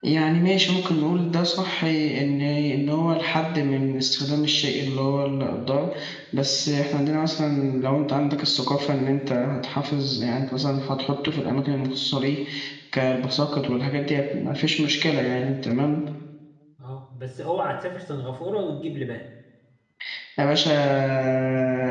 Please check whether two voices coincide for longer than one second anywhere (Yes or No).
No